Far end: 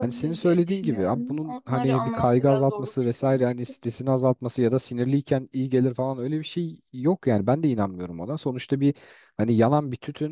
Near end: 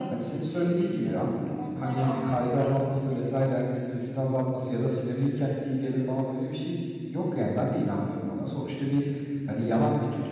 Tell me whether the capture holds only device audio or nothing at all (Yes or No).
Yes